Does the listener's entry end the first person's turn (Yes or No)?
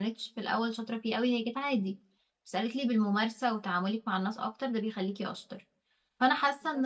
No